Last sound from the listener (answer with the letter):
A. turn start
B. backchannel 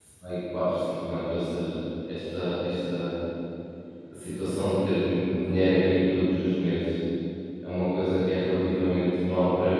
B